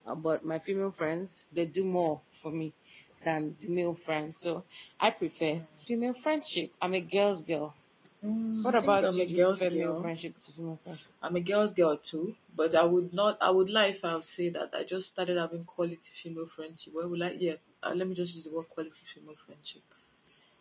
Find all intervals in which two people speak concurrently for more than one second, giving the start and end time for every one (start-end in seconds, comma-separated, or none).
8.6-10.1